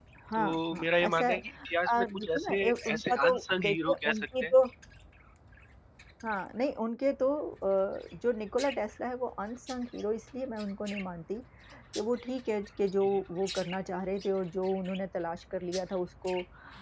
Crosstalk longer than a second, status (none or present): present